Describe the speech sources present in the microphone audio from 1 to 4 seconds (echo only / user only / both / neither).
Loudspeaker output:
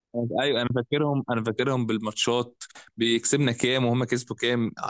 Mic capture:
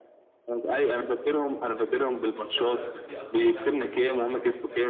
both